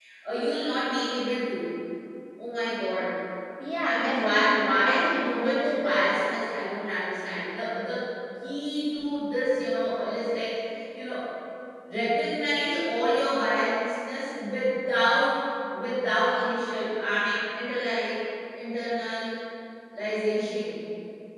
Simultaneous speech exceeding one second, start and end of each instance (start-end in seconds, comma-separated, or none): 3.9-6.0